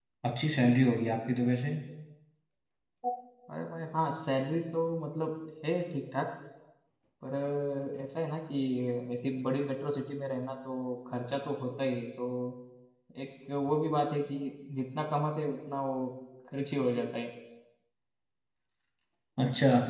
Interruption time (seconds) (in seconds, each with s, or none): none